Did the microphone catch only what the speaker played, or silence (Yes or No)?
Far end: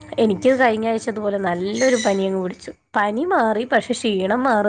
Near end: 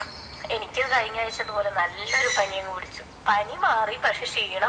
Yes